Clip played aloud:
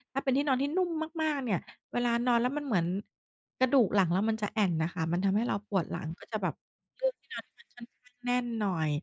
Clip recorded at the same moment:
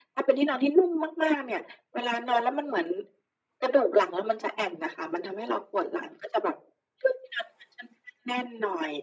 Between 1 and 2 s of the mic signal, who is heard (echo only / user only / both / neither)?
echo only